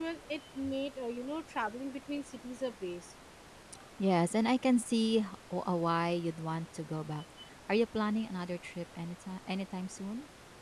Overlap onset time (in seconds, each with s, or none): none